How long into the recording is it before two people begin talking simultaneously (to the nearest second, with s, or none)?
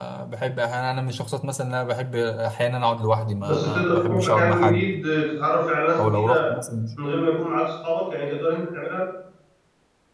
3 s